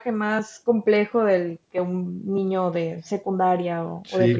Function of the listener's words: taking over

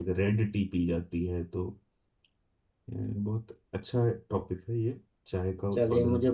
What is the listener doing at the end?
taking over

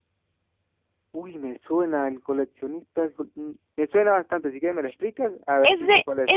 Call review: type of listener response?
taking over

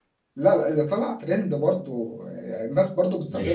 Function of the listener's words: taking over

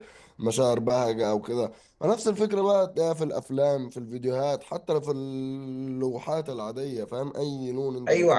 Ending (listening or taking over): taking over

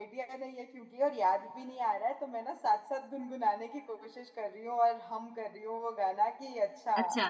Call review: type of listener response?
listening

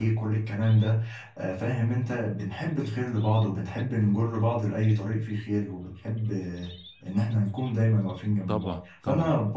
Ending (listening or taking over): listening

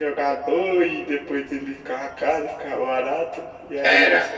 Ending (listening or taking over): listening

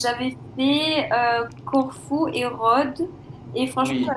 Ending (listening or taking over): listening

